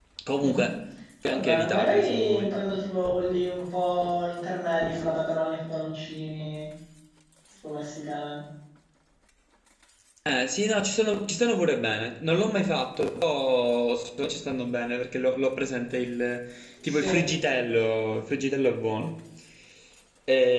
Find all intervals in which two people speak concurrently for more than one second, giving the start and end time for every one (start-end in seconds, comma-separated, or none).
1.3-2.5